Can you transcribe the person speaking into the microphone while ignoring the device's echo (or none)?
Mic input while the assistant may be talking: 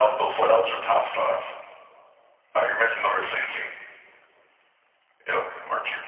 none